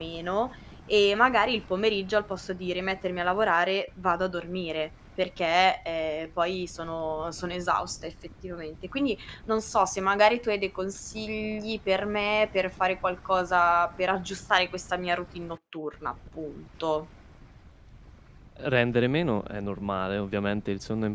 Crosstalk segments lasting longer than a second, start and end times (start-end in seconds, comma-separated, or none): none